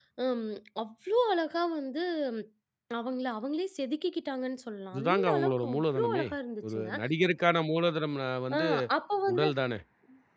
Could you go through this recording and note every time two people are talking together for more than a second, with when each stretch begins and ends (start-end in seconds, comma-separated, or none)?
4.9-6.2